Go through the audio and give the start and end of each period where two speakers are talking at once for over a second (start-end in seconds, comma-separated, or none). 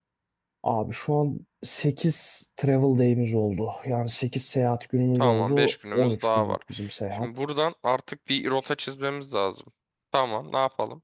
5.2-6.6